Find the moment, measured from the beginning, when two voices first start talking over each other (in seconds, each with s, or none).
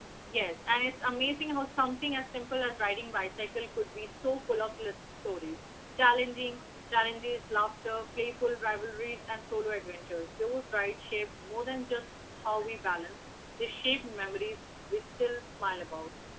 none